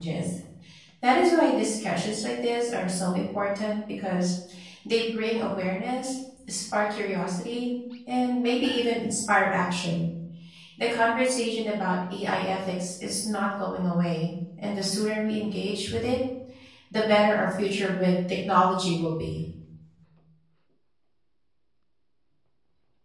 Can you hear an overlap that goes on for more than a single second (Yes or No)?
No